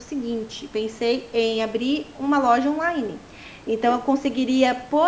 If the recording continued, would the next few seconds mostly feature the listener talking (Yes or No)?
No